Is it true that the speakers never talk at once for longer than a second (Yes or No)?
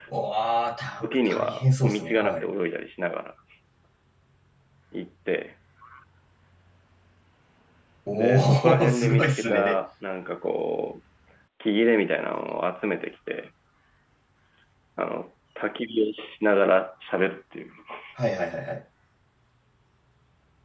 No